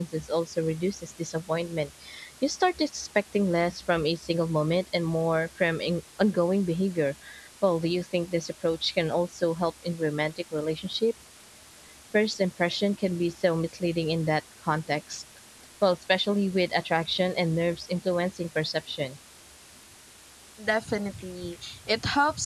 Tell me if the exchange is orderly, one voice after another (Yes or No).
Yes